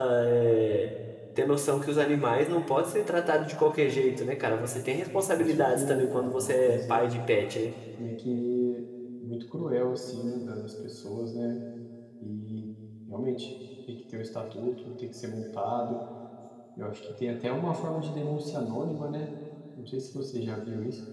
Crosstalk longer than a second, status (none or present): present